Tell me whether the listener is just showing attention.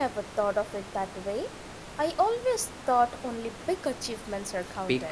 No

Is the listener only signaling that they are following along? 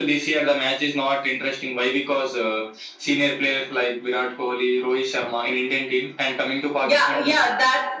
No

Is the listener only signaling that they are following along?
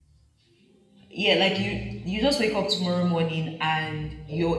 Yes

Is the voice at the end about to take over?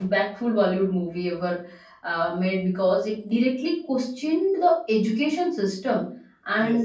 No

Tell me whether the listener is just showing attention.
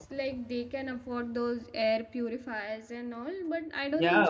No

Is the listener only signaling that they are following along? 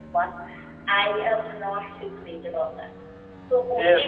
Yes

